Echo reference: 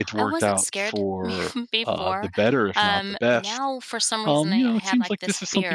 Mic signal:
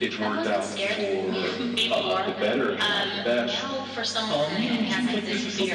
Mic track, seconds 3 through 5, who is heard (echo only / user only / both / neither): both